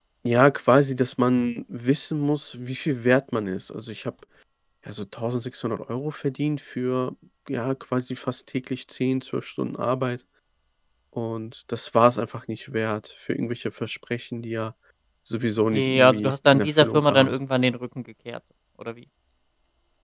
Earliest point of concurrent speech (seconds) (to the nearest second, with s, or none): 16 s